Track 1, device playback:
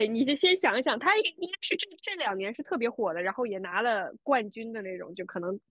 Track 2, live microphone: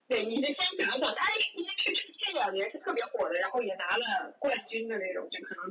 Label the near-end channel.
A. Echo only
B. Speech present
A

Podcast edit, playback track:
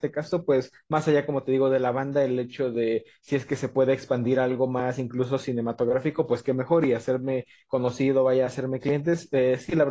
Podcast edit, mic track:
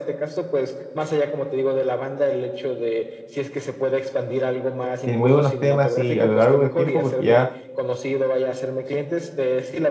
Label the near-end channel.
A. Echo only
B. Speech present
B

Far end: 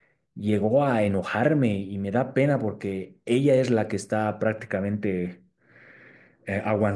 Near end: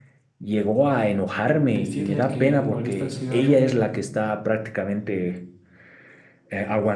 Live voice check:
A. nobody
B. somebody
B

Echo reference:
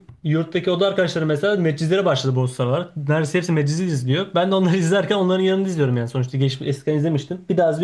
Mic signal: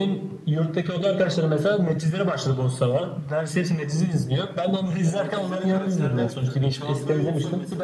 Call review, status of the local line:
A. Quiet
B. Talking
B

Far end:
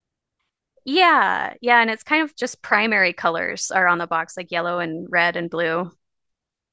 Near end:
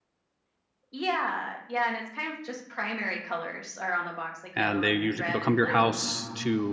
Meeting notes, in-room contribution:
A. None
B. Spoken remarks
B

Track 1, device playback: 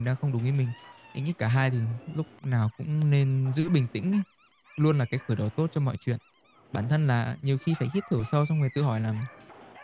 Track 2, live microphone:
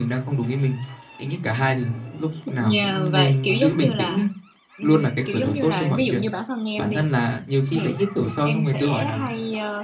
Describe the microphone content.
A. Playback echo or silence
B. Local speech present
B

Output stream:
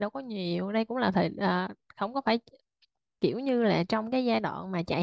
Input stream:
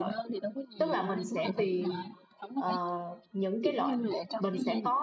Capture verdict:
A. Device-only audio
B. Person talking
B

